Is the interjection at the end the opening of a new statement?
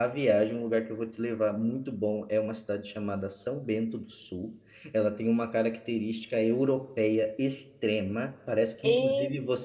No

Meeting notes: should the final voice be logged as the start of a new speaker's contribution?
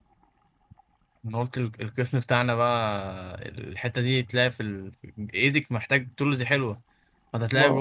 No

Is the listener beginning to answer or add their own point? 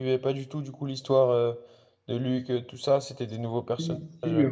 Yes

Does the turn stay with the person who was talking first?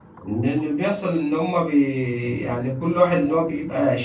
Yes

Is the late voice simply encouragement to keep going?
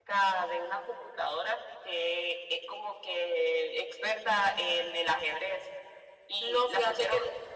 No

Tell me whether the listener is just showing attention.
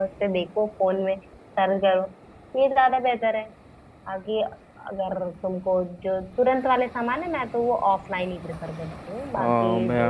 No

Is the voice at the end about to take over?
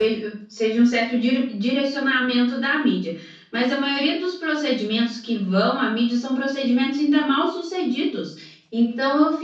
No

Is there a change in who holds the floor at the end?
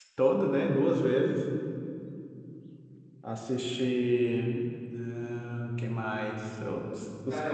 Yes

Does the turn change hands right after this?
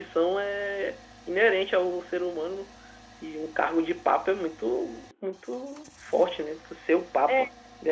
Yes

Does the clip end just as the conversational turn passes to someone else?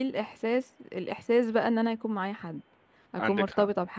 No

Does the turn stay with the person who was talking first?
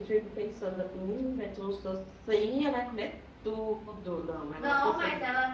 No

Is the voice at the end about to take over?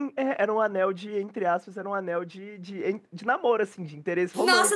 Yes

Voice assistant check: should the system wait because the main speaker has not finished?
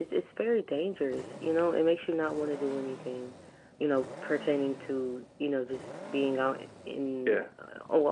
Yes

